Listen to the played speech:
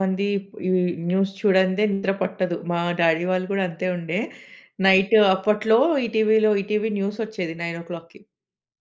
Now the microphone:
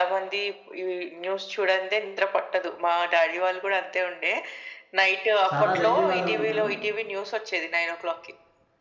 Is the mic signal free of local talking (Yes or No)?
No